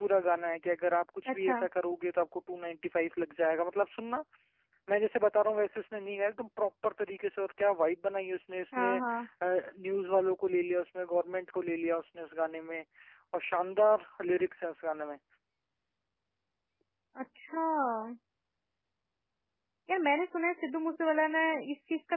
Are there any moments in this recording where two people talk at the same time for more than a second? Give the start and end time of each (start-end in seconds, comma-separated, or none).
none